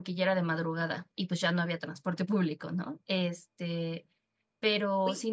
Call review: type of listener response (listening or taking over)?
listening